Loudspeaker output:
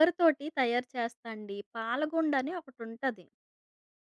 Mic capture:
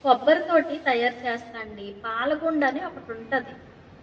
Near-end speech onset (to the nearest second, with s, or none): none